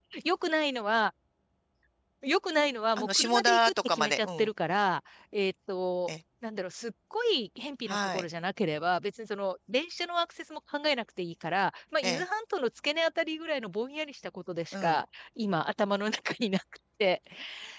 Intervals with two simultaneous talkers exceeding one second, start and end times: 3.0-4.5

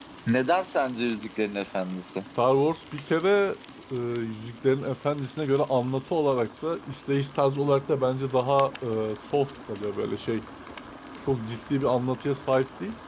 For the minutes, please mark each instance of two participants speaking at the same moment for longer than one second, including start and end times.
none

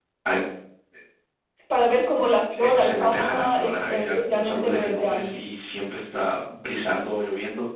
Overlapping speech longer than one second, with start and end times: 2.6-5.4

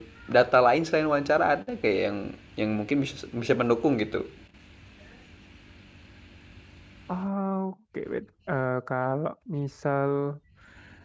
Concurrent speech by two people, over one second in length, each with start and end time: none

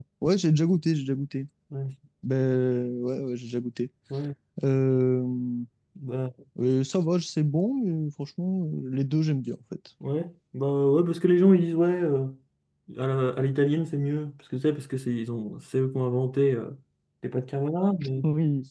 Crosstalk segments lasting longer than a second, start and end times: none

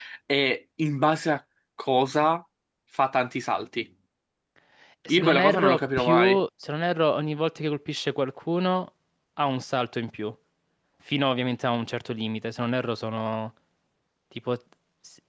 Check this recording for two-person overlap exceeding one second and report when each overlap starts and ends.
5.1-6.4

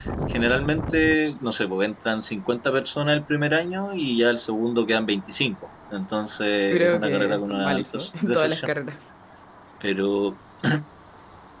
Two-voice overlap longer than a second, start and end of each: 6.7-8.7

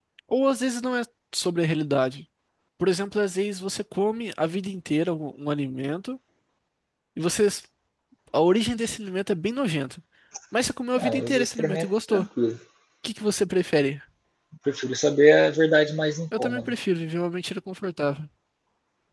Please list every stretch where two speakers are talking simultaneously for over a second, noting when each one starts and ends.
11.0-12.2

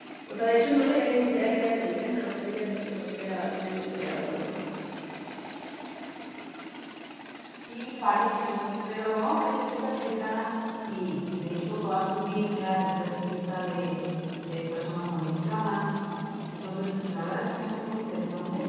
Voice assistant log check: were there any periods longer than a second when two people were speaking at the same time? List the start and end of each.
none

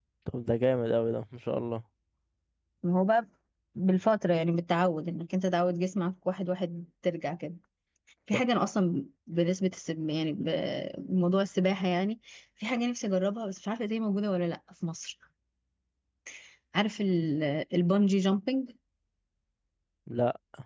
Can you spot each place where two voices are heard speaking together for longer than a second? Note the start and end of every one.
none

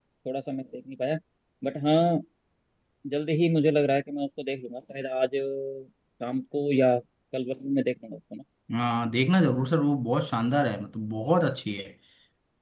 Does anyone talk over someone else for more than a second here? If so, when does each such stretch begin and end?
none

